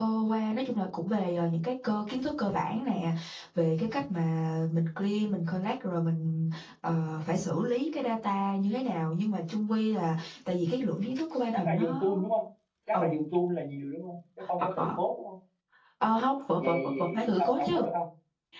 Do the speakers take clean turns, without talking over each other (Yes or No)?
No